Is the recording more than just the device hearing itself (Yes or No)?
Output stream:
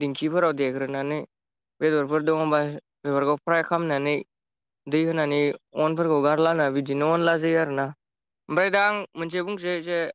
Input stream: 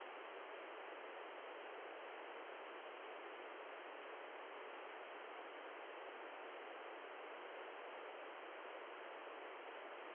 No